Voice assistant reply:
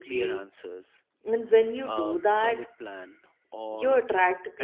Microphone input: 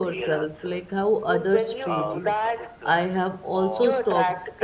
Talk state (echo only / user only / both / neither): both